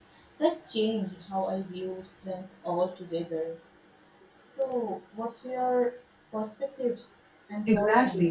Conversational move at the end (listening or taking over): taking over